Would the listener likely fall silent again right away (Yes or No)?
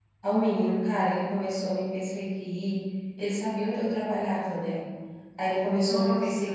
Yes